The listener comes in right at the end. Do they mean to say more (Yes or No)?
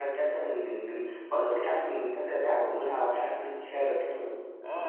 Yes